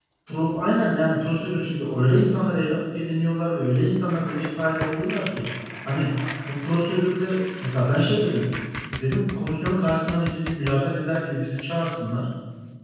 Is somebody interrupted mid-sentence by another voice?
No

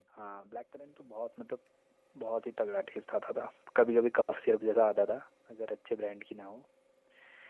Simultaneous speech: No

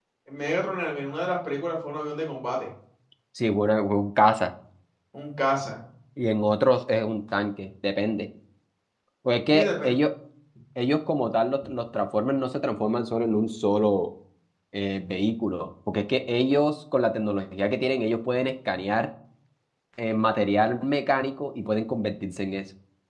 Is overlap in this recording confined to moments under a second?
Yes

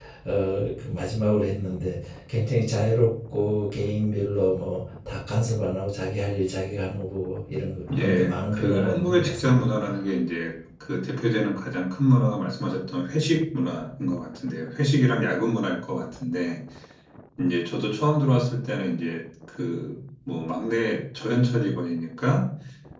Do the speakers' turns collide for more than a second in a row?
Yes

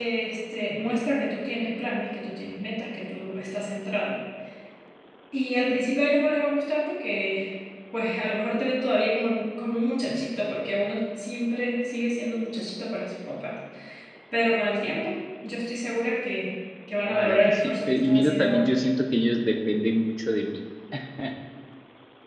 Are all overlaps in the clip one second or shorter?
No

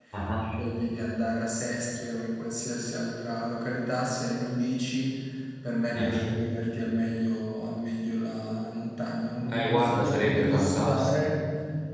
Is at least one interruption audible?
Yes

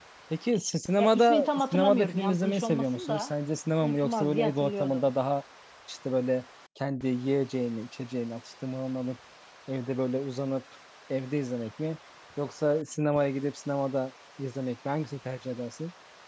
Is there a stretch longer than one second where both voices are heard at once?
Yes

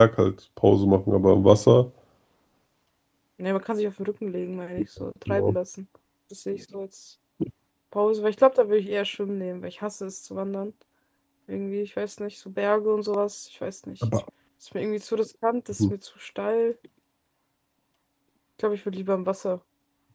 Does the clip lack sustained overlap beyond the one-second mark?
Yes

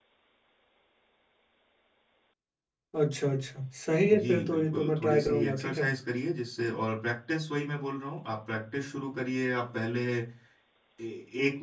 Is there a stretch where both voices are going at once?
Yes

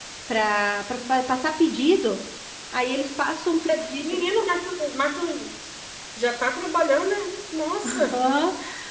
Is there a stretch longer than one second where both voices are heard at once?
No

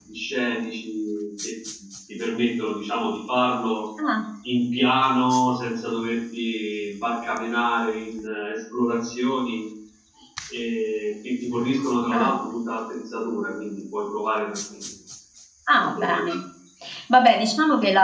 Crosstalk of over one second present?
No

